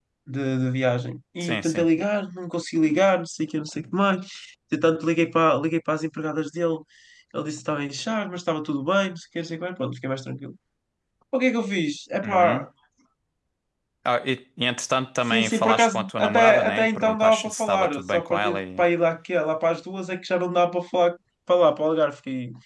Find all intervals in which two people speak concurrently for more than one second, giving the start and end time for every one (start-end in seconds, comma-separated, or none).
15.3-18.8